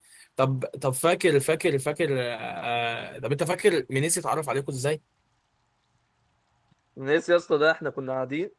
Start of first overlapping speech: none

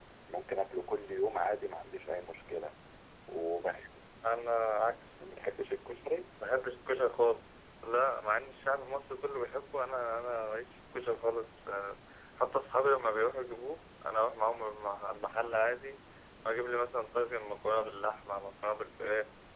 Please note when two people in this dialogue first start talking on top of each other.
none

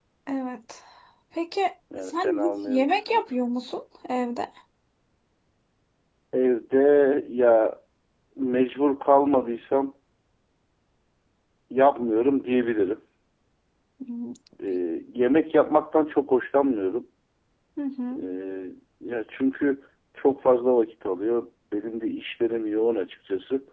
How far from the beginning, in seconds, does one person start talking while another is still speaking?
2 s

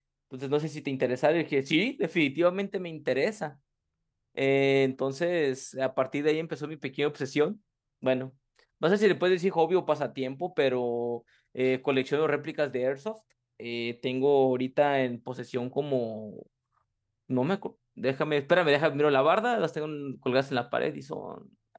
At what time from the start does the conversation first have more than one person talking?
none

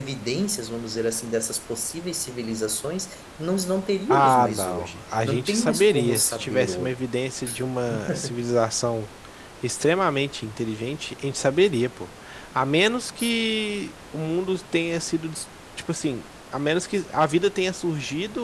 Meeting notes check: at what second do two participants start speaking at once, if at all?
4 s

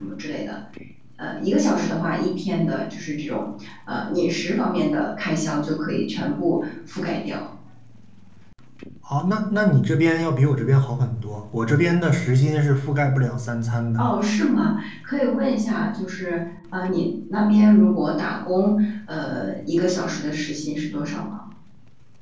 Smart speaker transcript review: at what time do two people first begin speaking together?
none

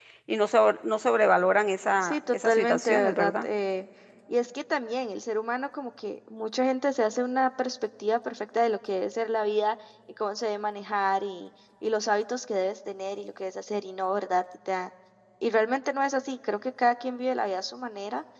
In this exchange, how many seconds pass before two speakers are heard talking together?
2 s

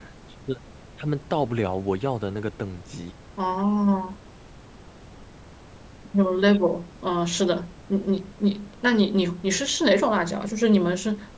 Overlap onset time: none

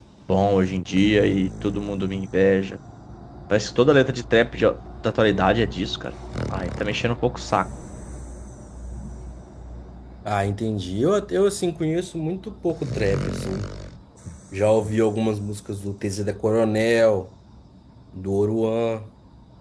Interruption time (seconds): none

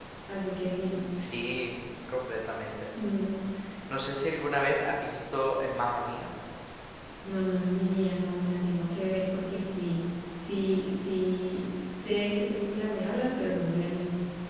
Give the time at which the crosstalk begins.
none

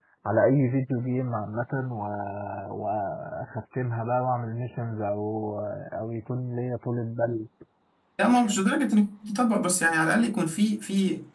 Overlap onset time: none

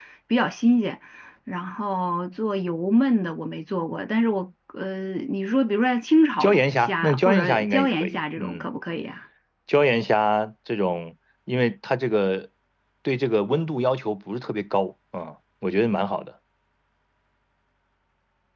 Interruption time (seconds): 6 s

